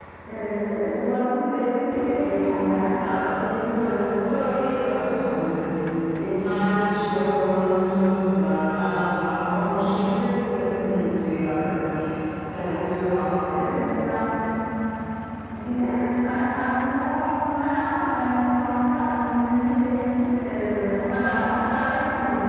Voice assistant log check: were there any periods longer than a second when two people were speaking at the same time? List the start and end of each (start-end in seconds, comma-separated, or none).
none